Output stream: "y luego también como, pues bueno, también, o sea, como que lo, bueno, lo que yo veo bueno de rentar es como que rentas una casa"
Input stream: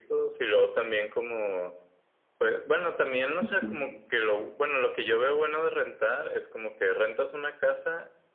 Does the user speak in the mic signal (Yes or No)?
Yes